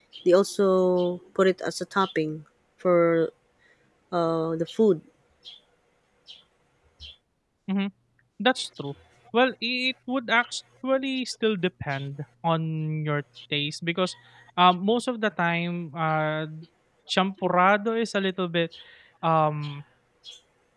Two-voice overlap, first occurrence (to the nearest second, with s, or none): none